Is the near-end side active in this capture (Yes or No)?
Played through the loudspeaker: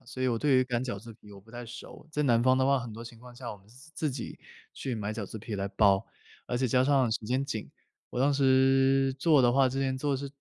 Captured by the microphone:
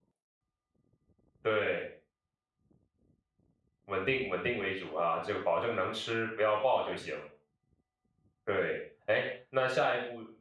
Yes